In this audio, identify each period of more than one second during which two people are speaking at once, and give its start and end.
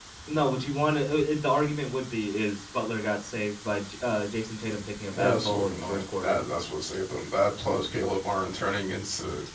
5.1-6.4

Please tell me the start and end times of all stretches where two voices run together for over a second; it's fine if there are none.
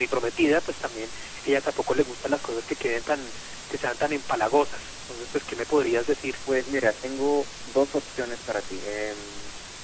none

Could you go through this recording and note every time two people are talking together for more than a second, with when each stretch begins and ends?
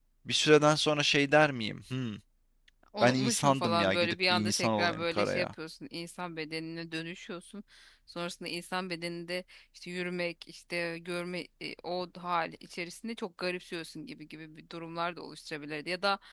3.0-5.5

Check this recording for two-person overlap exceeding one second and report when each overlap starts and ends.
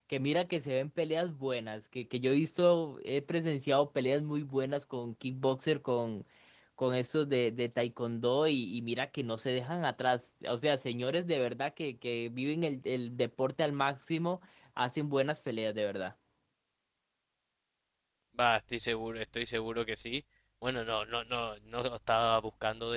none

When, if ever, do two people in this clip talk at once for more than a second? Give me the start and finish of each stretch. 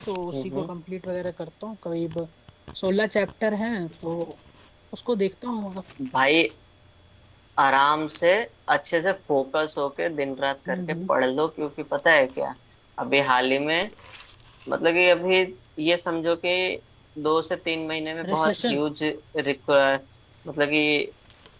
none

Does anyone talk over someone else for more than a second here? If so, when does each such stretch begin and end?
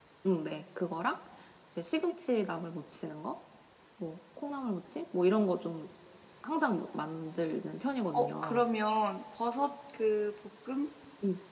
none

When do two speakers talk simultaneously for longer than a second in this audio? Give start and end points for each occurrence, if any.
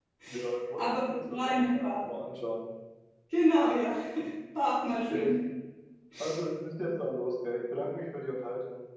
0.8-2.1

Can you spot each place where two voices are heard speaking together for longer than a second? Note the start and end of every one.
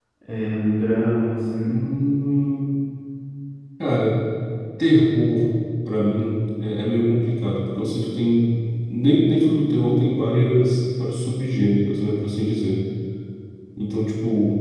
none

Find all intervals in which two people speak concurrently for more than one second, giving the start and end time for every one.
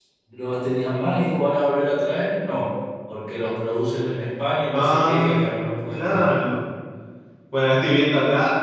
4.7-6.3

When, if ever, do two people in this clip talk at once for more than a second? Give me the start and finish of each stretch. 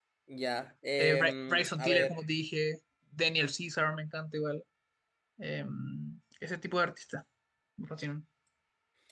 1.0-2.2

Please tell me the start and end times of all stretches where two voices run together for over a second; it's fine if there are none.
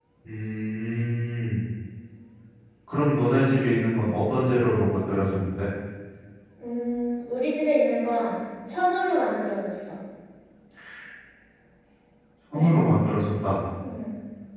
none

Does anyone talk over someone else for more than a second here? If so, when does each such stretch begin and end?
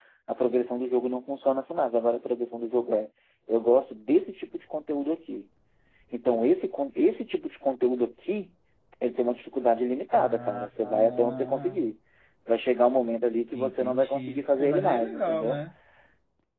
10.1-11.9, 13.5-15.6

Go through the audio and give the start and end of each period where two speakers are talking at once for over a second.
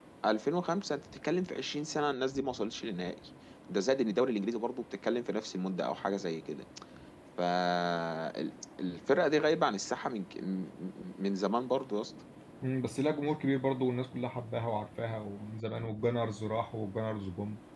none

